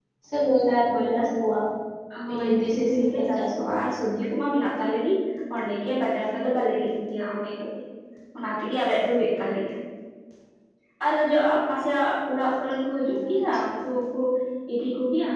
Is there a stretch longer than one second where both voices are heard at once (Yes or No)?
Yes